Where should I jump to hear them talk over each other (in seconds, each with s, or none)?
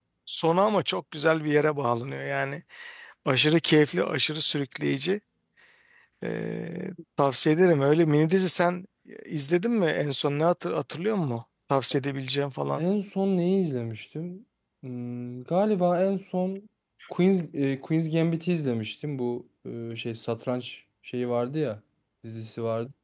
none